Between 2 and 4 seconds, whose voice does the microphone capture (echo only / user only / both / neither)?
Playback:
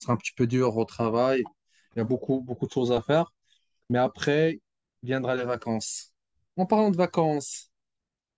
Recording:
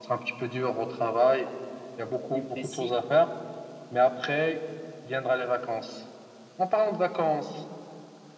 both